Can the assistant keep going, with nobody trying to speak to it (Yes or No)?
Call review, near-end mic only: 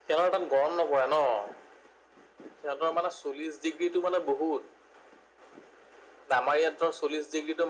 Yes